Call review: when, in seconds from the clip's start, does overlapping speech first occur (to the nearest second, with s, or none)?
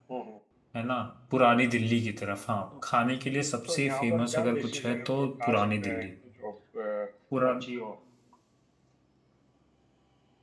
4 s